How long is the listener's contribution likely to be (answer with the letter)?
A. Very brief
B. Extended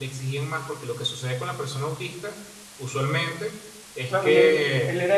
B